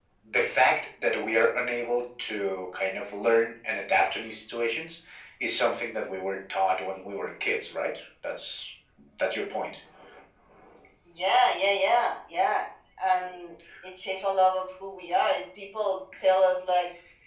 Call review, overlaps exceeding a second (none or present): none